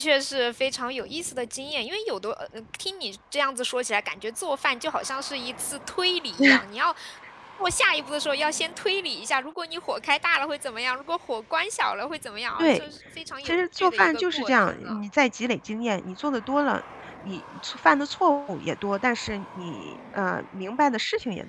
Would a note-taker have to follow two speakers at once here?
Yes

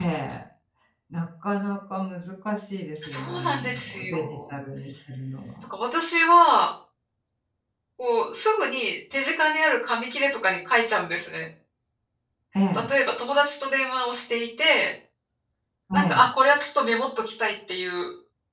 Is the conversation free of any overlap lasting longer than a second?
No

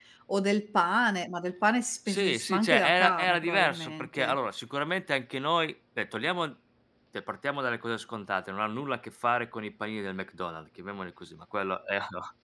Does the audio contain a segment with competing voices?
Yes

